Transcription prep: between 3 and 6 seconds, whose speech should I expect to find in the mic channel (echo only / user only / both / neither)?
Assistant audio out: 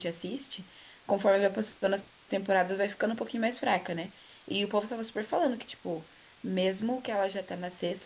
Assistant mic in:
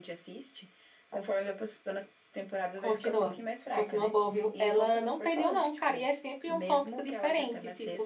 both